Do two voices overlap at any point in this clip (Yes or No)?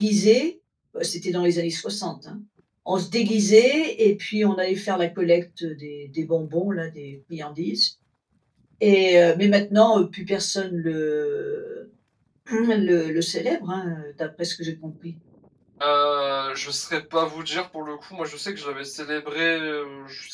No